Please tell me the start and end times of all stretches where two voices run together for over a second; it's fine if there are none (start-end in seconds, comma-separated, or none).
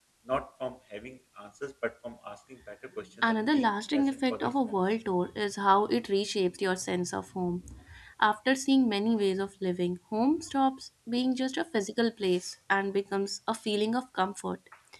3.2-4.8